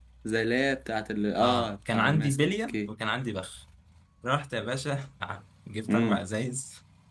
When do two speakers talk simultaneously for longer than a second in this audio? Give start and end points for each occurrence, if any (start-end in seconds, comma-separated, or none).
1.4-2.9